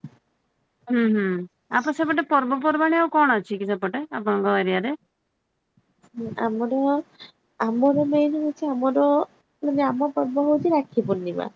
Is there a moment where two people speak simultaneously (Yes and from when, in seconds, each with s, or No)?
No